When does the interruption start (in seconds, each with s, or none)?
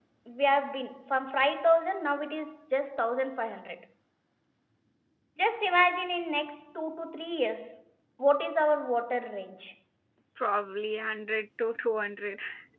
none